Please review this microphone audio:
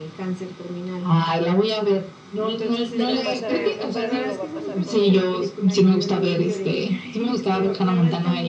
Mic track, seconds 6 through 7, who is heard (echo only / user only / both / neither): echo only